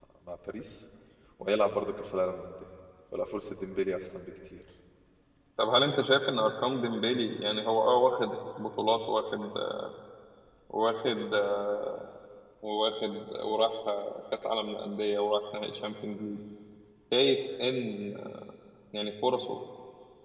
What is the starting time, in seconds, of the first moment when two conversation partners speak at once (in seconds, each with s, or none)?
none